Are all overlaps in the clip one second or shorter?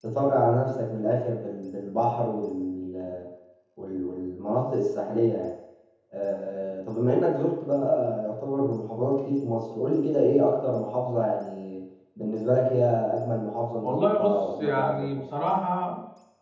No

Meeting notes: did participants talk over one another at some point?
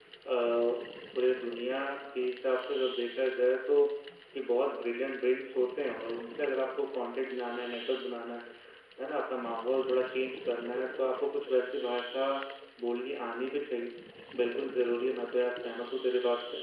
No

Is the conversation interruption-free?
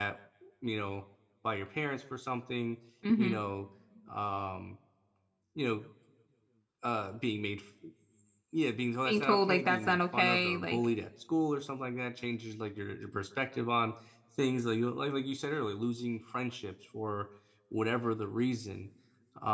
No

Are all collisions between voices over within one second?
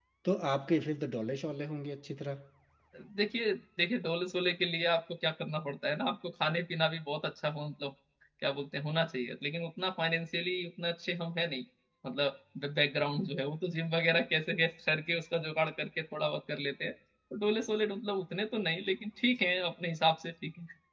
Yes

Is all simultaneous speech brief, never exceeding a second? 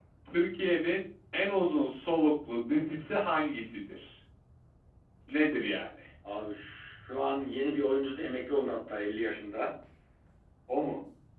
Yes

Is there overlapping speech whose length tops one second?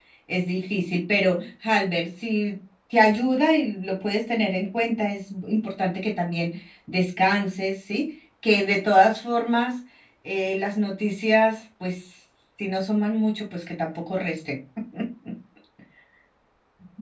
No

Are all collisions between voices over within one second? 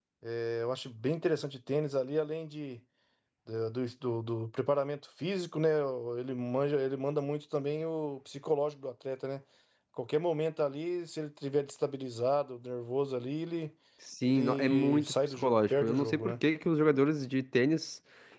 No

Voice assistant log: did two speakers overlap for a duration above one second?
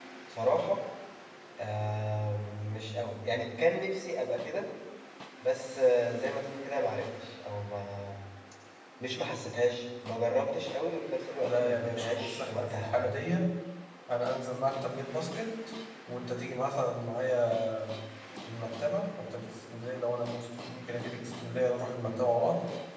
Yes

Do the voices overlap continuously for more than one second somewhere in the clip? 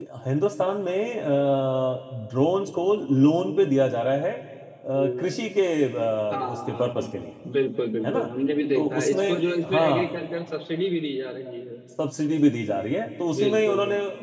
Yes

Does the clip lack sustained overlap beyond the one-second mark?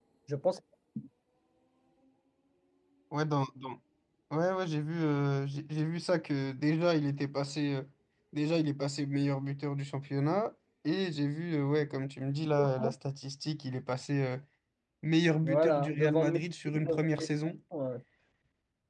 No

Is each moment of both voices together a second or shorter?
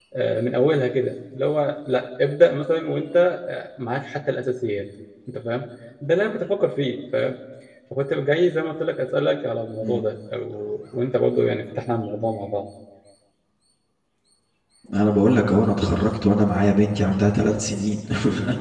Yes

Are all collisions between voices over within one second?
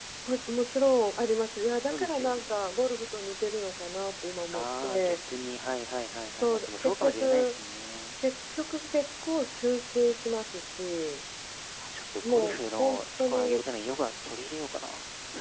No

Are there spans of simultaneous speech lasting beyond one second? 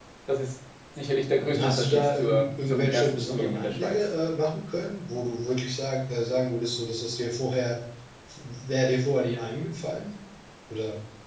Yes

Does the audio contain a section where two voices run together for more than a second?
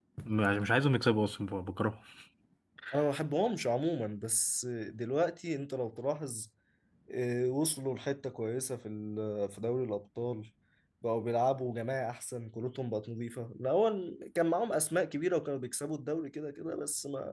No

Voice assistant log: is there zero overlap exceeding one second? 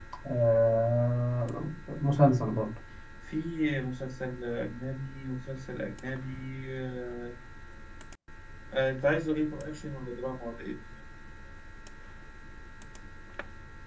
Yes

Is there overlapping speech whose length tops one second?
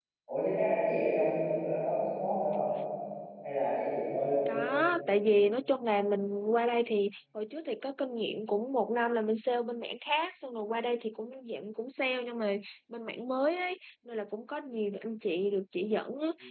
No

